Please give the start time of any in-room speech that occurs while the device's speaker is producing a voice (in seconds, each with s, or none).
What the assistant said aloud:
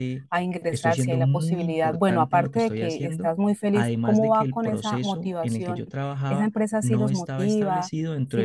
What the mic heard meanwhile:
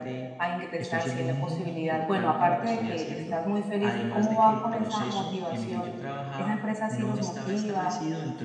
none